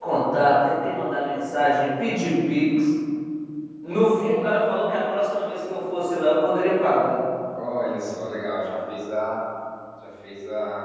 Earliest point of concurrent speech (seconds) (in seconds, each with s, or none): none